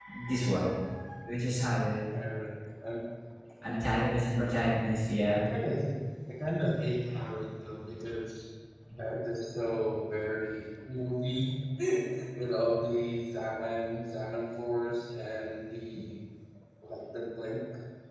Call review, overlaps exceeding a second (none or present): none